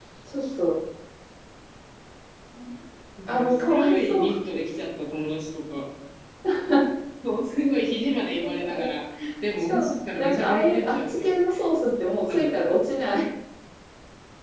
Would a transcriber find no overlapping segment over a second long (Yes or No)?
No